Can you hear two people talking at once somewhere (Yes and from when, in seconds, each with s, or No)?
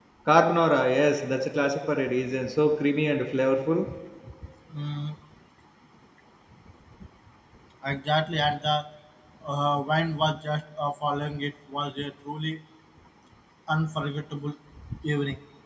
No